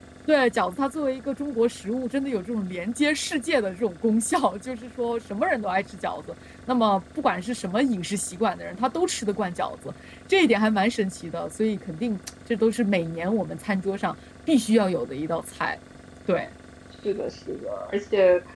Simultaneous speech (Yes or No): No